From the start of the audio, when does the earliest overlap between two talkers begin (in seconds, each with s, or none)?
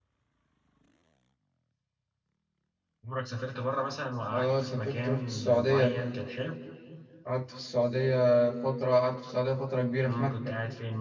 4.3 s